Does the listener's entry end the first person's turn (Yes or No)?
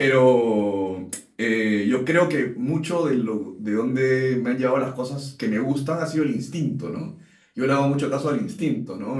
No